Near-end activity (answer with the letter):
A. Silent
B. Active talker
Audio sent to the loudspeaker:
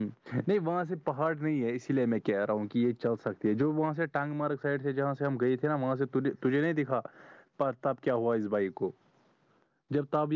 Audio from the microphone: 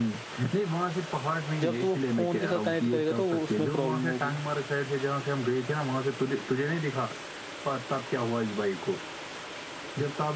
B